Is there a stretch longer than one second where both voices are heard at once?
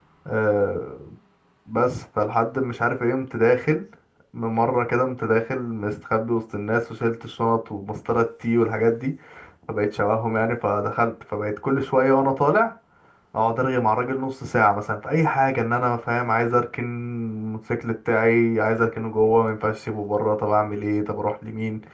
No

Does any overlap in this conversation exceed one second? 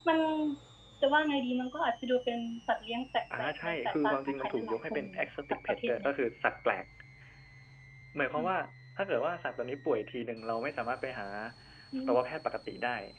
Yes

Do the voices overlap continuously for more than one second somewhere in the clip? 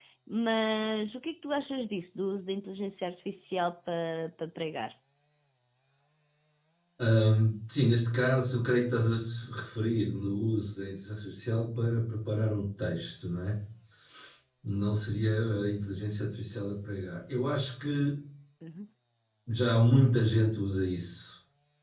No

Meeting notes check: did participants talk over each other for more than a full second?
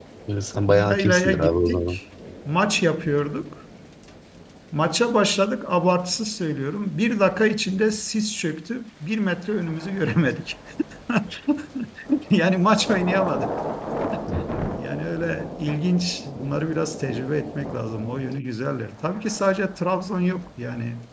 Yes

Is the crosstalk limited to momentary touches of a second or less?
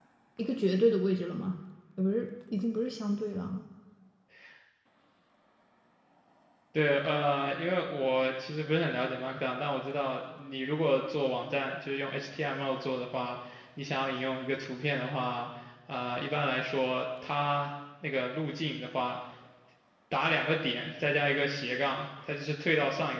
Yes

